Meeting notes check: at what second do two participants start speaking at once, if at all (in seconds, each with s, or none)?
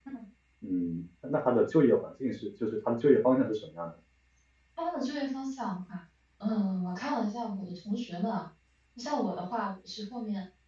none